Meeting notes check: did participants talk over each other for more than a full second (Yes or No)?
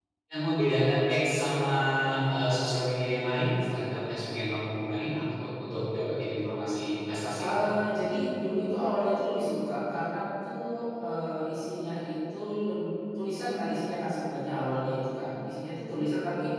No